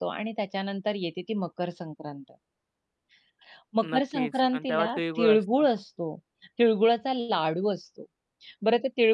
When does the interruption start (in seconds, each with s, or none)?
3.9 s